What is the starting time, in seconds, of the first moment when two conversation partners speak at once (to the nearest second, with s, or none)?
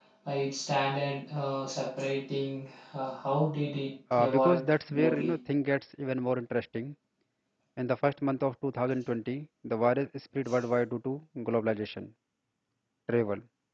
4 s